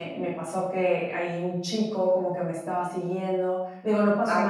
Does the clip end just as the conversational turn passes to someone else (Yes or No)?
No